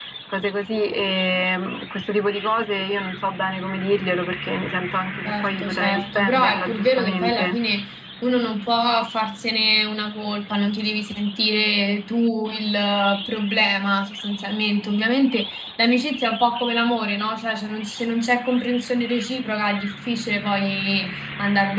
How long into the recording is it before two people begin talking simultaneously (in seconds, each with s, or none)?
5.2 s